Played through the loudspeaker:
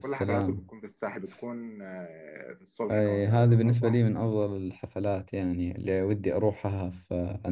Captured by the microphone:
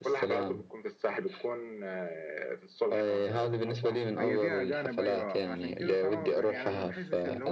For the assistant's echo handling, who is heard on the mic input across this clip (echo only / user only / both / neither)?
both